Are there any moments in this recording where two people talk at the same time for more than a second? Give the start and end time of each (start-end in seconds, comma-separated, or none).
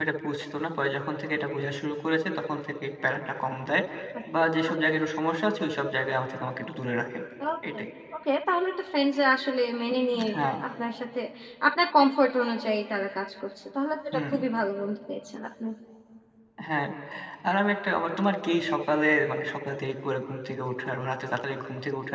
none